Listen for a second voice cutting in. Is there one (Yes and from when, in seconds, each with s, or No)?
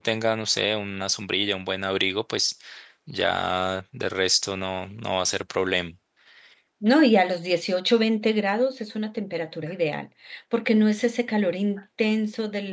No